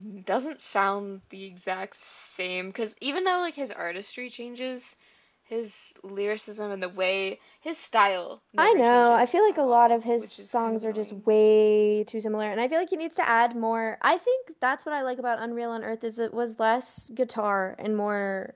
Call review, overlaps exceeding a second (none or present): present